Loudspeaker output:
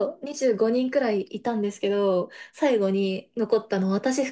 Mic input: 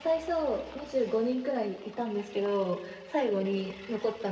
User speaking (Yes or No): No